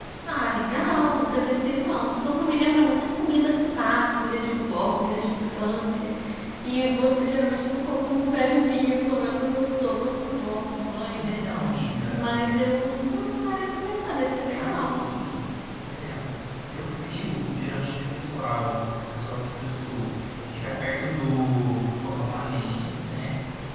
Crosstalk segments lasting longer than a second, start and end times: none

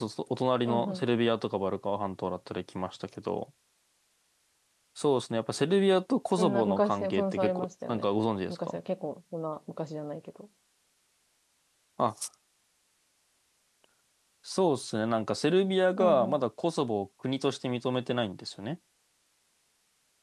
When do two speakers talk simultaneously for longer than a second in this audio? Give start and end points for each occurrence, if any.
6.3-8.1

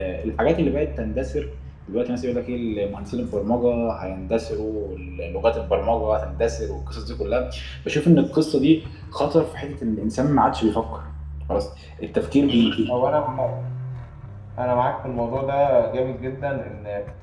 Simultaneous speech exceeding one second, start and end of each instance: none

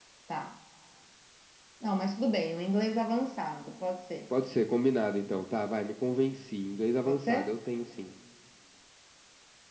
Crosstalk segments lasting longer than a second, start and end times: none

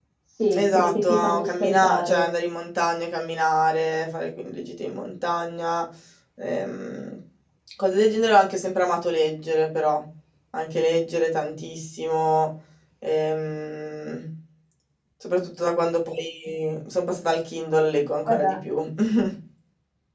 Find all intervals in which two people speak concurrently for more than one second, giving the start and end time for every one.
0.6-2.3

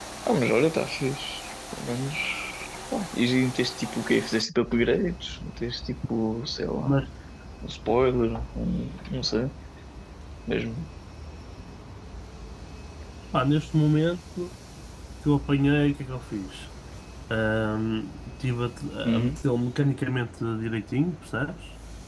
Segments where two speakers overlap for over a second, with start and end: none

